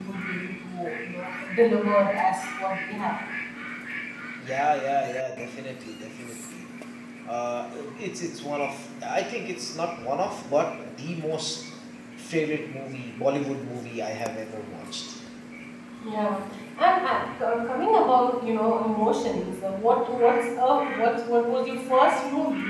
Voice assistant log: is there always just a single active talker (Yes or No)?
Yes